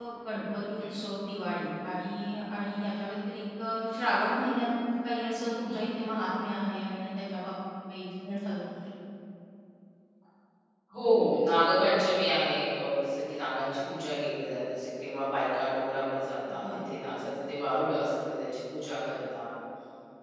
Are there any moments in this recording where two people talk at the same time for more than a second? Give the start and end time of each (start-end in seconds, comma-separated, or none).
none